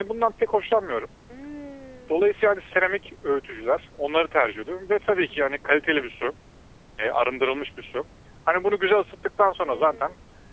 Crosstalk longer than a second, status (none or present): none